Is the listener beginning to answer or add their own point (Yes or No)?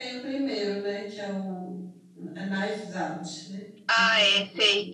Yes